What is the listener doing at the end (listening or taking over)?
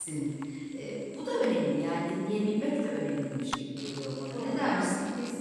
taking over